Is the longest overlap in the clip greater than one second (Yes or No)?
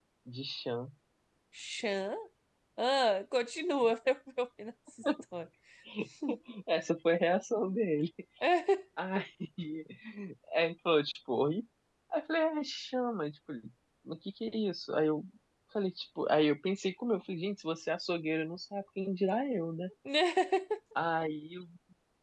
No